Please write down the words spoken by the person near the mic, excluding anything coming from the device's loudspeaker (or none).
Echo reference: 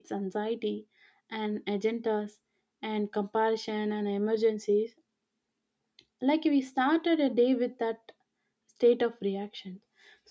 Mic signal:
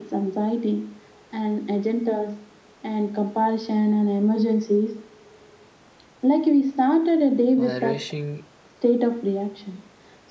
a rushing